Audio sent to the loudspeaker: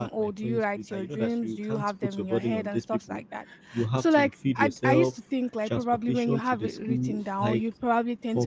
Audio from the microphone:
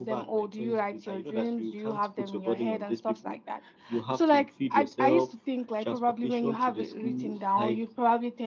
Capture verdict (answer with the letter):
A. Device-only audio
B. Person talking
A